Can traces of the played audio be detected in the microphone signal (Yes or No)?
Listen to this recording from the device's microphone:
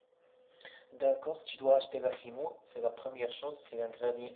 Yes